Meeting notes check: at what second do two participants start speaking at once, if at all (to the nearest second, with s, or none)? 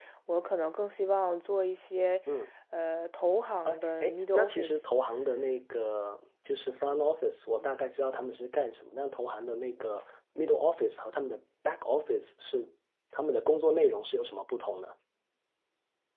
4 s